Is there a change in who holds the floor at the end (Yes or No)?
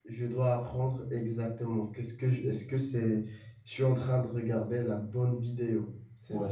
Yes